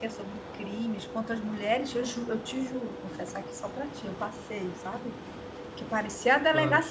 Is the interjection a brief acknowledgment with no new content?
Yes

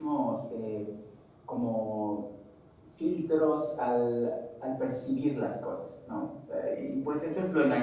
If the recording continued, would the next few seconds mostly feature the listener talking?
No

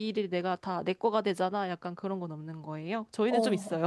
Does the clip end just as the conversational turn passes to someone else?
Yes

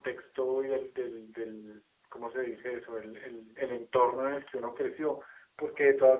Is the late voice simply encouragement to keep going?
Yes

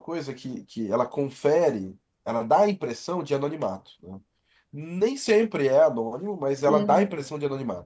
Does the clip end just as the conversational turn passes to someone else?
No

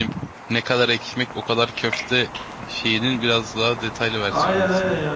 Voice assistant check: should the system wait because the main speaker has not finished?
No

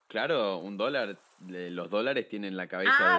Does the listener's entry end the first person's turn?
Yes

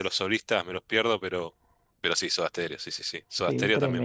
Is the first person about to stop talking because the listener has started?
Yes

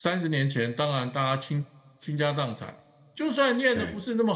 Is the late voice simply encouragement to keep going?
Yes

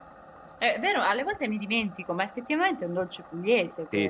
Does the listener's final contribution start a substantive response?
Yes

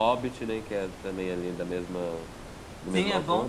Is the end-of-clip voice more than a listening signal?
Yes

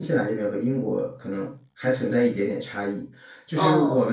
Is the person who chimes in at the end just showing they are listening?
Yes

